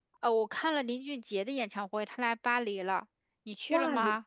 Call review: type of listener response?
taking over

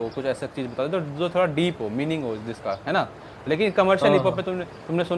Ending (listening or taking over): listening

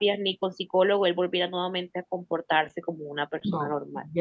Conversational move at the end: taking over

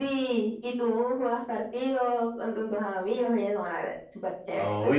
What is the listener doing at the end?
taking over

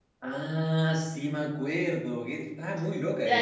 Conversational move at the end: taking over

